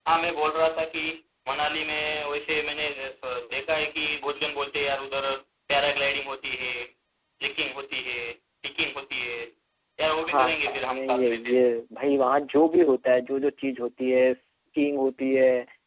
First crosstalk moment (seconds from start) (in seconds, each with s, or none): 10.2 s